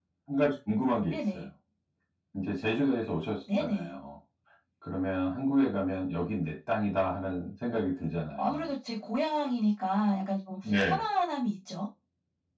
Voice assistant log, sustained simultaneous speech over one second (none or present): none